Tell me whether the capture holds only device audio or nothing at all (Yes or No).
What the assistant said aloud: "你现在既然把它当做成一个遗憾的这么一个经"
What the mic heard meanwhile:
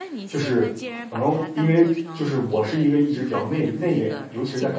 No